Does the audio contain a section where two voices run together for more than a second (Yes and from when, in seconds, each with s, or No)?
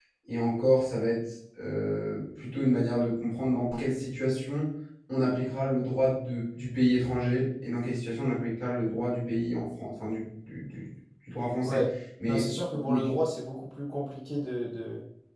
No